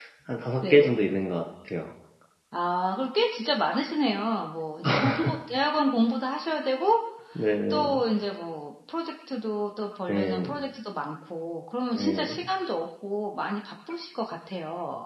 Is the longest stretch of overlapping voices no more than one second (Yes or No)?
Yes